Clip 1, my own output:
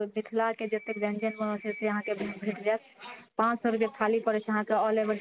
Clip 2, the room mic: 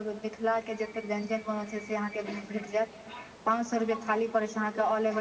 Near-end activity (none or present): none